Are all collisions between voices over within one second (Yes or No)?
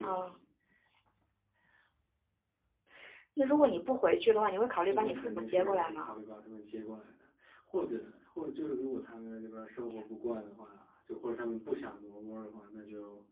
No